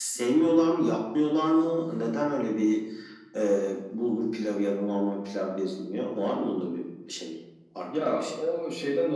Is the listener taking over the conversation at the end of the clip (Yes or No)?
Yes